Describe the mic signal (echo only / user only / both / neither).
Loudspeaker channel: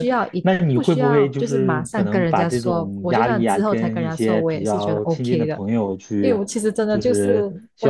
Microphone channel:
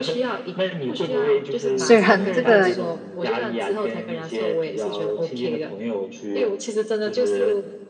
both